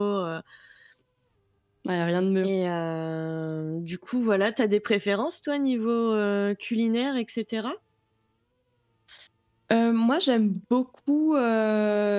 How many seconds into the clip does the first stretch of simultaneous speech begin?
none

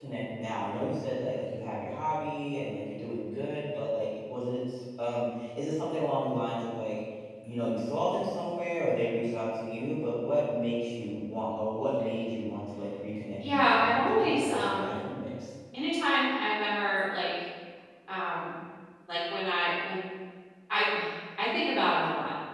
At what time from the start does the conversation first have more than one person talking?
13.4 s

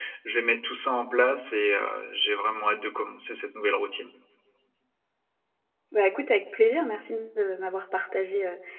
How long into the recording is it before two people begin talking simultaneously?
none

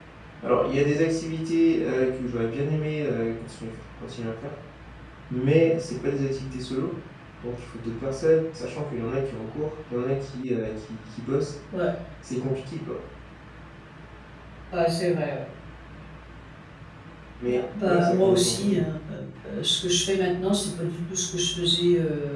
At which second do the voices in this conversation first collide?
17.5 s

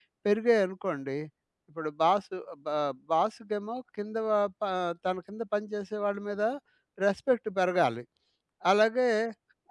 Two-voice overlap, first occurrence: none

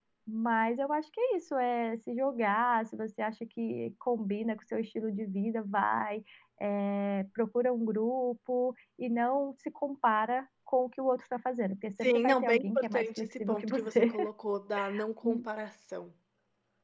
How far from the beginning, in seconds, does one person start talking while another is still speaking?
12.0 s

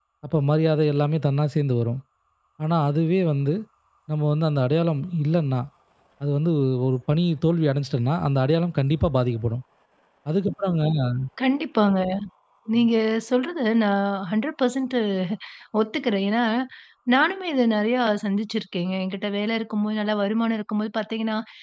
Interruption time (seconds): none

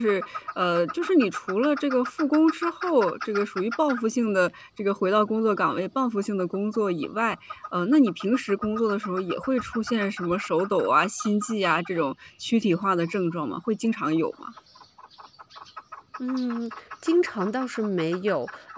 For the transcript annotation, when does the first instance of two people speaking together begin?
none

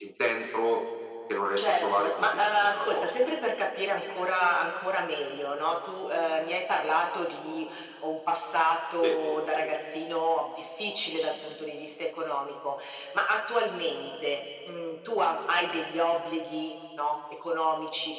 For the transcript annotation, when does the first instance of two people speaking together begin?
1.6 s

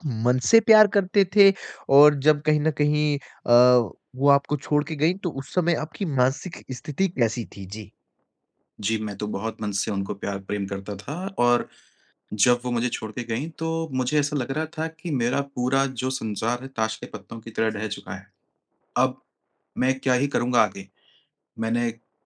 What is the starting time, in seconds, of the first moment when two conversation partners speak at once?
none

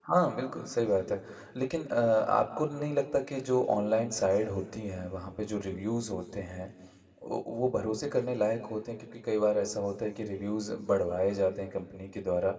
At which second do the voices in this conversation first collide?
none

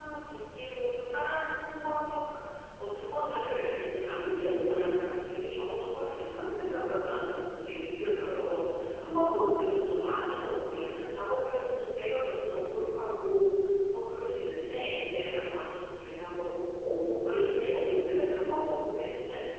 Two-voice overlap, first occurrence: none

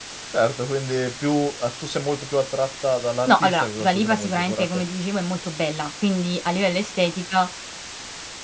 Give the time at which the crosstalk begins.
3.3 s

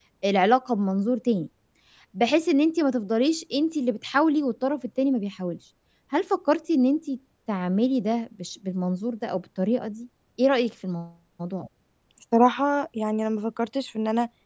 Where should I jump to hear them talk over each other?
none

